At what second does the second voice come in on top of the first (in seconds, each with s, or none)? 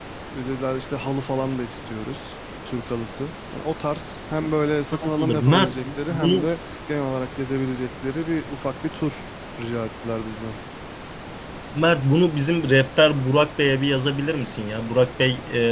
4.9 s